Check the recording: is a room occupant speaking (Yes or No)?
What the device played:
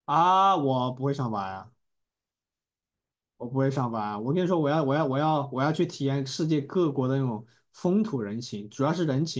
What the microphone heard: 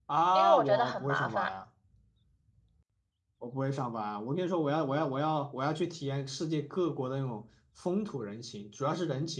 Yes